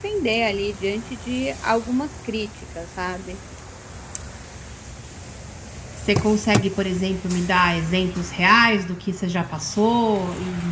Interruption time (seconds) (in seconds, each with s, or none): none